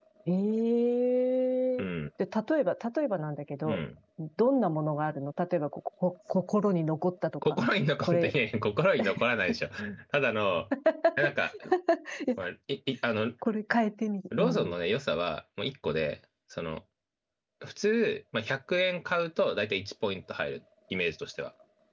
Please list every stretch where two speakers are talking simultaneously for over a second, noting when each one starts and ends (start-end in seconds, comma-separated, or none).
none